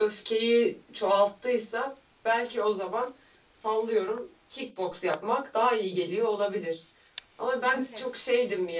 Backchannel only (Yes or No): Yes